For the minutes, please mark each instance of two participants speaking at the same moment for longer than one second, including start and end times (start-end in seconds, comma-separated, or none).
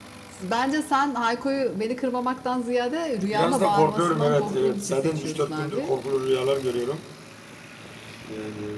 3.3-6.0